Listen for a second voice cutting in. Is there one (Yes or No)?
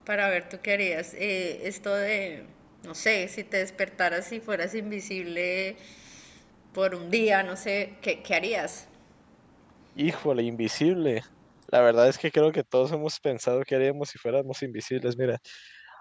No